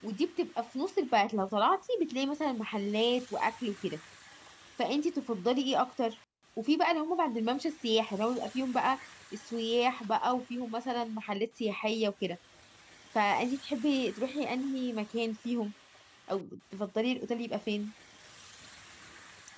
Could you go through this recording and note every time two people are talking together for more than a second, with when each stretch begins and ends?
none

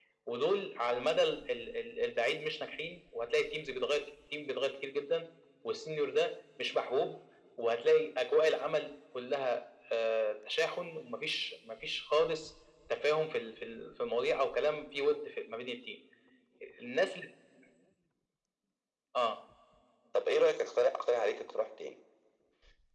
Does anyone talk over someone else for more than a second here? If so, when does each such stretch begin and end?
none

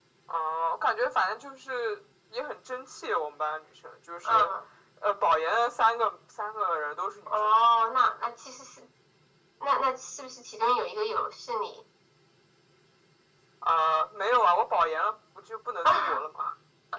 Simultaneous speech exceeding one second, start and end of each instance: none

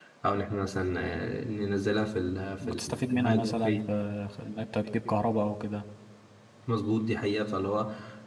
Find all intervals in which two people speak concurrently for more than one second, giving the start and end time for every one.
2.6-3.9

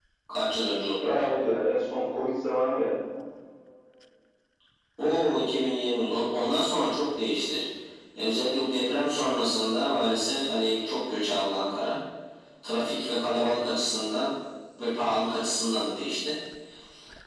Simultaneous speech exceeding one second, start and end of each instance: none

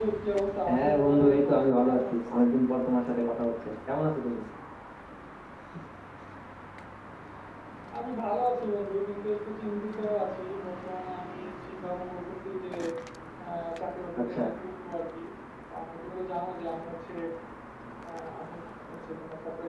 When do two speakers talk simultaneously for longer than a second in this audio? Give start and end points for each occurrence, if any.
0.7-2.2

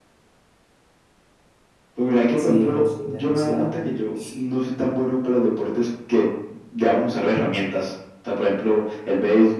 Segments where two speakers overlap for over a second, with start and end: 2.4-3.8

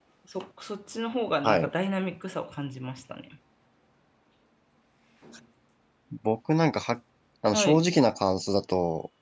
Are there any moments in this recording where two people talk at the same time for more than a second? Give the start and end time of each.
none

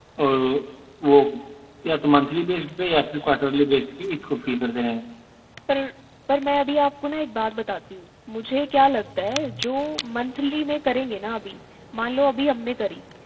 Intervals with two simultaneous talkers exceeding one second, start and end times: none

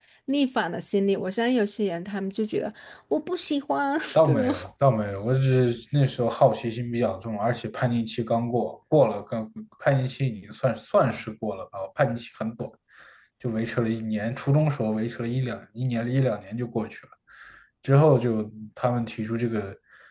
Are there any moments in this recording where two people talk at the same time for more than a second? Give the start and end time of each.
none

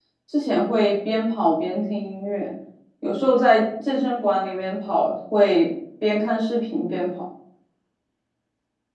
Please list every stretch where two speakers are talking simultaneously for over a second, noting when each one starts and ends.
none

